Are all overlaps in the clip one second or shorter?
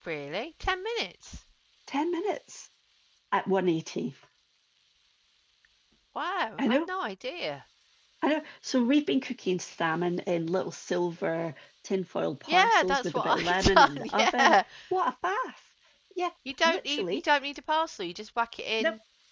No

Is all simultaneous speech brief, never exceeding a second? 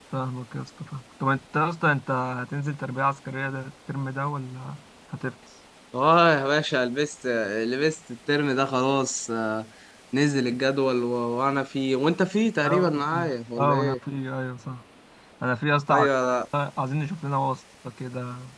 No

